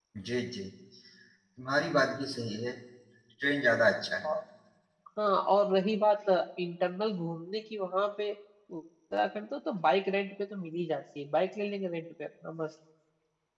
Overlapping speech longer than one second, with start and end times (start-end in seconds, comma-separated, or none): none